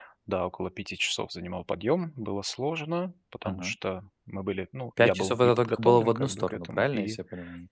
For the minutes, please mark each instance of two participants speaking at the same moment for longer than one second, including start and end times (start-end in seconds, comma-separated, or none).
5.0-7.2